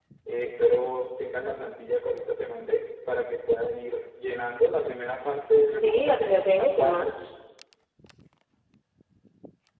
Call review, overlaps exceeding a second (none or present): present